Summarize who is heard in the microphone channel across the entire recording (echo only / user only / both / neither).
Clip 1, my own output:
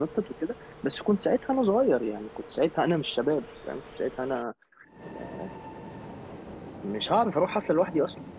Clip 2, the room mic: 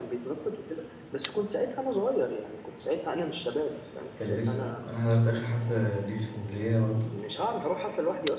both